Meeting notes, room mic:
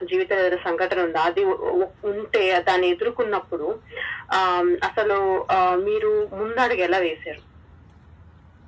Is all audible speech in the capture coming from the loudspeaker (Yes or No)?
Yes